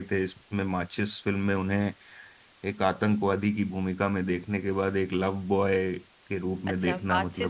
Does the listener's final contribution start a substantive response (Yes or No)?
Yes